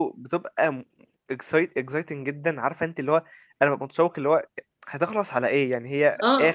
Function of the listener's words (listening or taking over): taking over